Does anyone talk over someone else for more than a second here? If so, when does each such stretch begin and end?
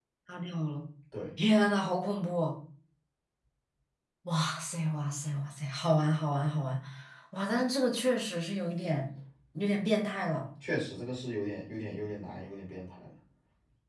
none

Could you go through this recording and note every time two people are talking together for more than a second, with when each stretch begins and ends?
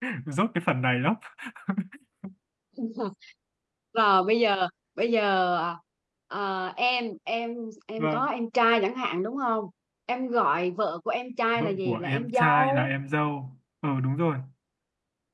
11.6-12.9

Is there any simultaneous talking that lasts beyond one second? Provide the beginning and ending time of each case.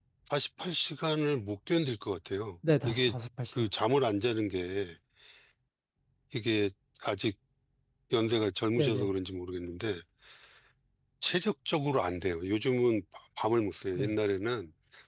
none

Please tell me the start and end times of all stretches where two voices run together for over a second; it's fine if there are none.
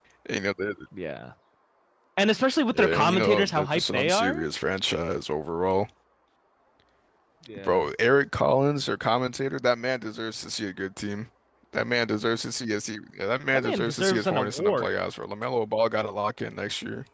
2.7-4.5, 13.5-14.9

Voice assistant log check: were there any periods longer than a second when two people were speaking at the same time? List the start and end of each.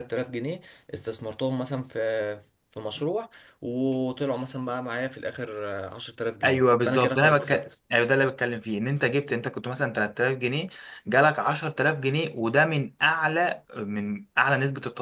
6.4-7.7

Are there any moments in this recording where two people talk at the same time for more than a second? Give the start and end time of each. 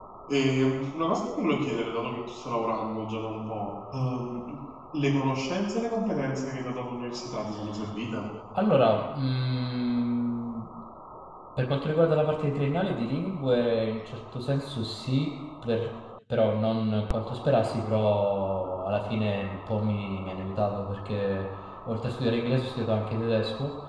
none

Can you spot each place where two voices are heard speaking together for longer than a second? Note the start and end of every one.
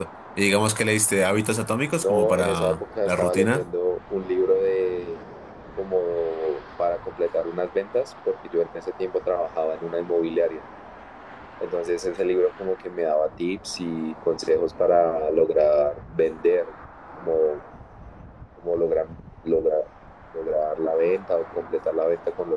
2.0-3.7

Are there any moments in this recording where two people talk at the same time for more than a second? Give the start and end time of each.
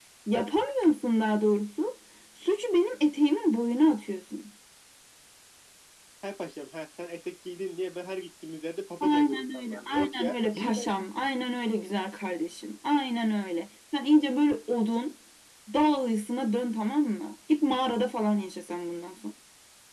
9.0-10.8

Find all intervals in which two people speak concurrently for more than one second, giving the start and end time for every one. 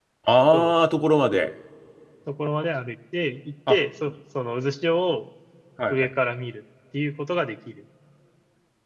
none

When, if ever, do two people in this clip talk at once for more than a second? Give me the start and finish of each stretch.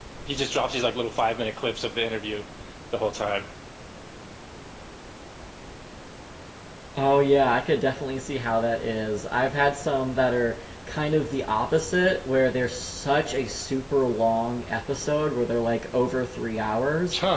none

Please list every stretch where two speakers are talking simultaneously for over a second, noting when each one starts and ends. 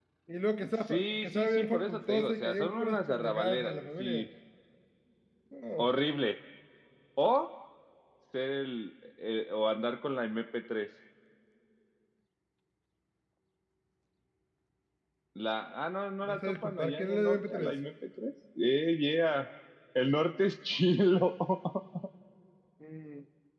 0.9-4.2, 16.2-17.7

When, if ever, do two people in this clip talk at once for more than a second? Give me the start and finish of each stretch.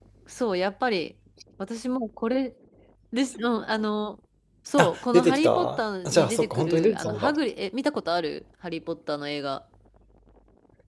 4.8-7.3

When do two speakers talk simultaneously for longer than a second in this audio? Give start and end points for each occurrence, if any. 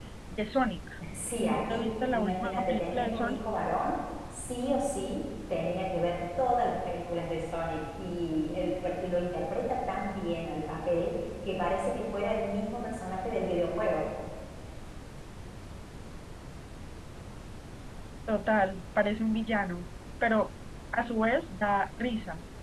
1.4-3.4

